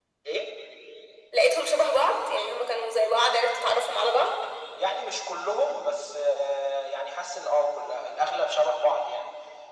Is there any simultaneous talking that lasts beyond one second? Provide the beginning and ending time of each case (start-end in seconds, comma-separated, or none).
none